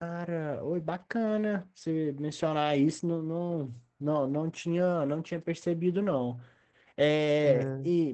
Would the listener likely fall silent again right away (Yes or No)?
Yes